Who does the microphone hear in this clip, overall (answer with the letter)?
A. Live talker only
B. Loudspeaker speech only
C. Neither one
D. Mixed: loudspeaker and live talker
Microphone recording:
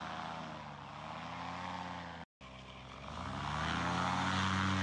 C